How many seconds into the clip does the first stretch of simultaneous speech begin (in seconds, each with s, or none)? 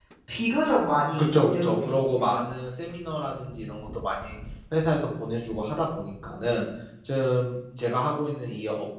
1.2 s